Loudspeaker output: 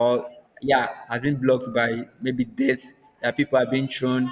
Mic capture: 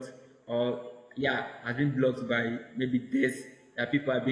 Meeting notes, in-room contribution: none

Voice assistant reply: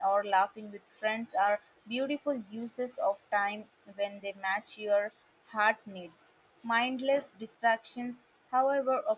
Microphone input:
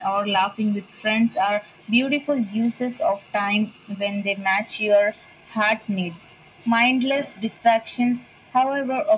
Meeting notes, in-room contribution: none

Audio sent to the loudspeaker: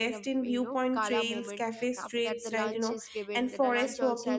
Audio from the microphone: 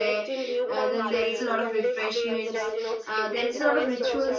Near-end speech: present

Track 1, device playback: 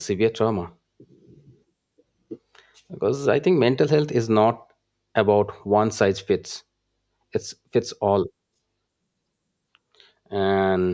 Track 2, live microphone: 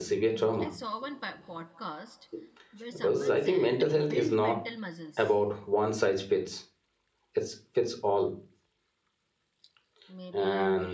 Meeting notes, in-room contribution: present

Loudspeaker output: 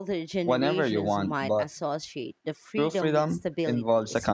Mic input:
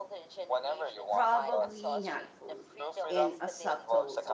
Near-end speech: present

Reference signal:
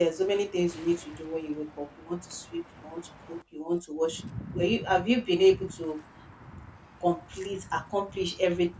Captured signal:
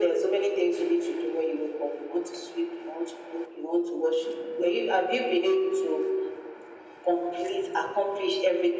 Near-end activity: none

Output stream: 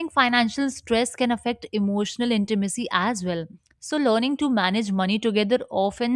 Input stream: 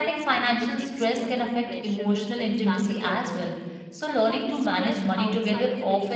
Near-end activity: present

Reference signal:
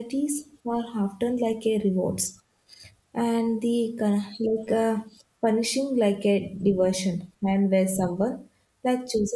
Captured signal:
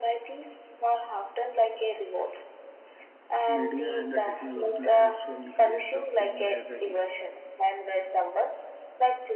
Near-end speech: present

